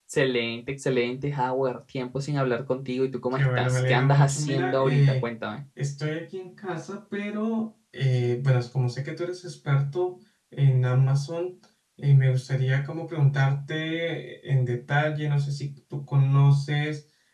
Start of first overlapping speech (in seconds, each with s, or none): 3.3 s